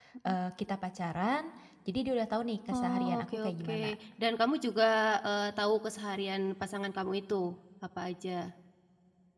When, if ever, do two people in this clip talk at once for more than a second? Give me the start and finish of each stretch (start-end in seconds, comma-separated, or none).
2.7-3.9